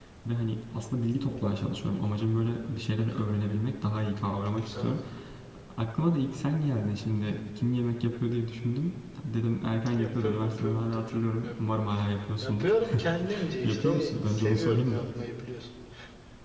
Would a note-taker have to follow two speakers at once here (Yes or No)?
Yes